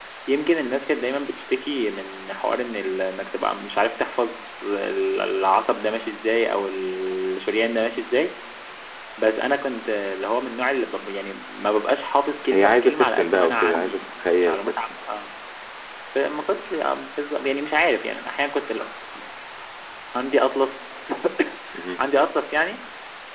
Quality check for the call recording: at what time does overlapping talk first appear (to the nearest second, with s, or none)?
13 s